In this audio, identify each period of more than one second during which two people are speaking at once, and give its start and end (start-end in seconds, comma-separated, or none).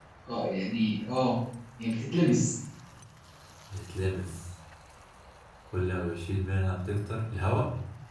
none